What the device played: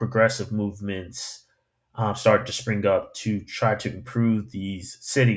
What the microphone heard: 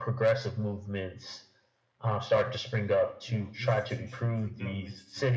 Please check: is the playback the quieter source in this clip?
No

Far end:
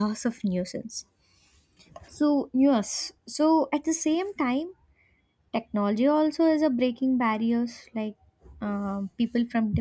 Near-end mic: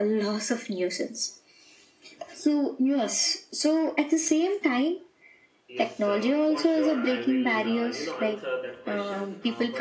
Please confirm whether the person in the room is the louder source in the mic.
No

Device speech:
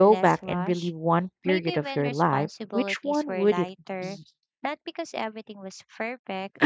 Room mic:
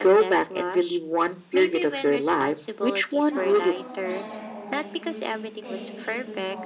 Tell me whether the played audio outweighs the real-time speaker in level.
Yes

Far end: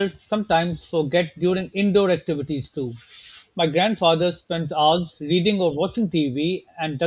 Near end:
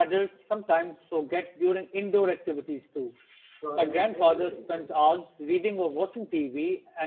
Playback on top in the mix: Yes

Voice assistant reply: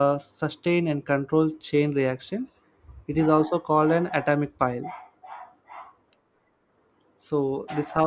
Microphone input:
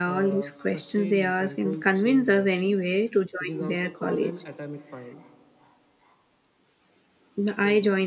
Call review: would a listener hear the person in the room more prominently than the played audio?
Yes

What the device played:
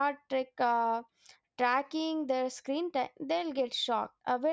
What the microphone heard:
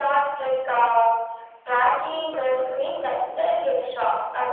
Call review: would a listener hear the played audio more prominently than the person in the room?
Yes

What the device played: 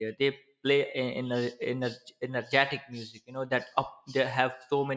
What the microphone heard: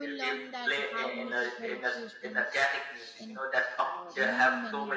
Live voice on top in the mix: No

